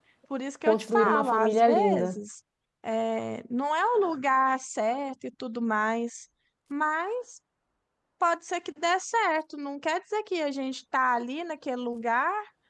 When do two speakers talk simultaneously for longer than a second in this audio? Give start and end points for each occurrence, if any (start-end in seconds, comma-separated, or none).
0.7-2.2